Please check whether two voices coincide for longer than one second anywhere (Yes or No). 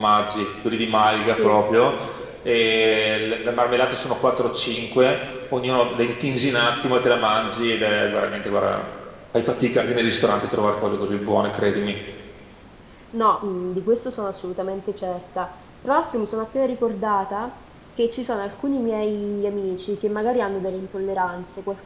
No